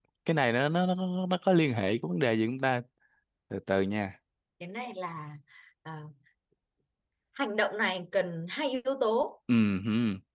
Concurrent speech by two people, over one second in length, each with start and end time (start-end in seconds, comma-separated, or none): none